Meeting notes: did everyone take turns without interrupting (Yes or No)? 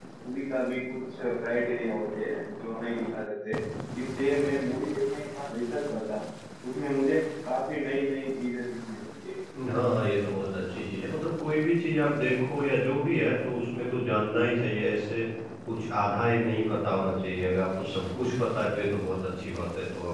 Yes